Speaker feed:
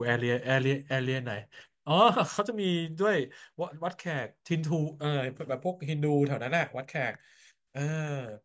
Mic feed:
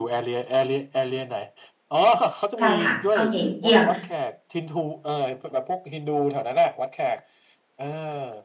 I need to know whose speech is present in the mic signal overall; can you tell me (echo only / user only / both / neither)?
both